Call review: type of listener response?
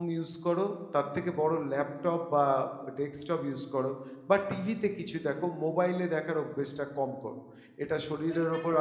listening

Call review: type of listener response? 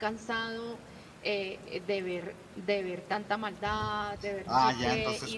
taking over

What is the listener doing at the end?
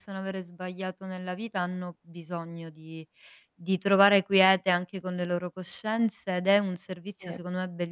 listening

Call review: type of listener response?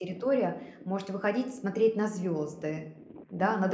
taking over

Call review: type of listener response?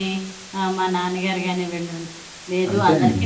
listening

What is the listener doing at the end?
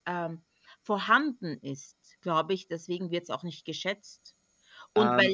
listening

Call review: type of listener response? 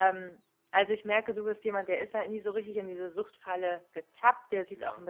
listening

